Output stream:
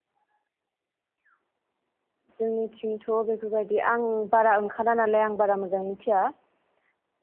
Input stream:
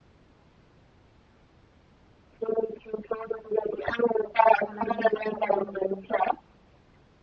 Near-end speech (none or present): present